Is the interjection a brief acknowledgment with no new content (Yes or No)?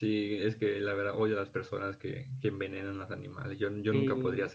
No